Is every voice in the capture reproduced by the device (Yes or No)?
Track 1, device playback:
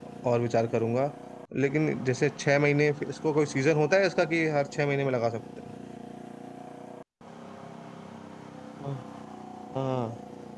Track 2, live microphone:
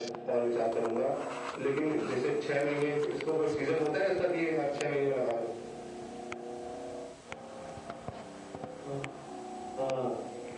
Yes